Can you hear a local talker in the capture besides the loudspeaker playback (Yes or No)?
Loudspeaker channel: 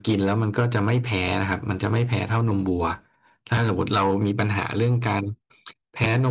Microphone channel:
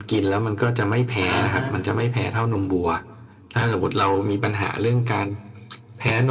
Yes